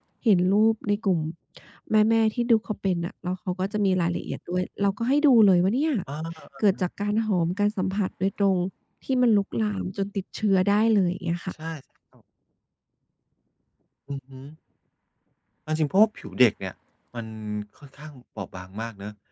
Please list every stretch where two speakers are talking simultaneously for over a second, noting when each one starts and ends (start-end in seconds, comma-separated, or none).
none